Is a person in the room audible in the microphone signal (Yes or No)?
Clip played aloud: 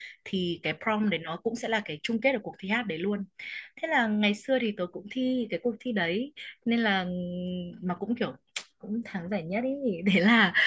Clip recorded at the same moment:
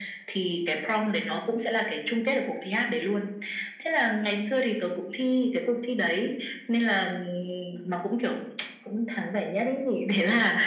No